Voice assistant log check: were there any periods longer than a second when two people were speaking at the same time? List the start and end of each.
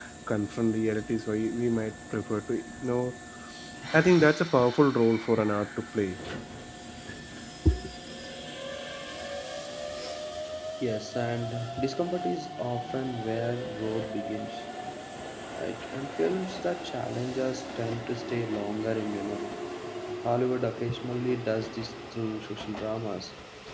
none

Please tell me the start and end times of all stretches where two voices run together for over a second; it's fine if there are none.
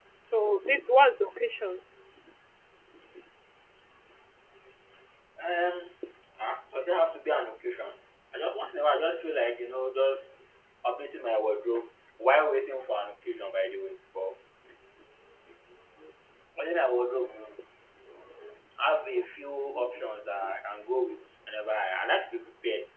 none

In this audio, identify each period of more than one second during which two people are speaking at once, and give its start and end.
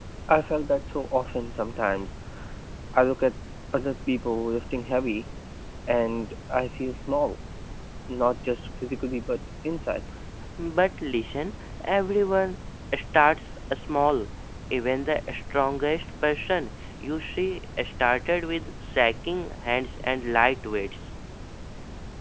none

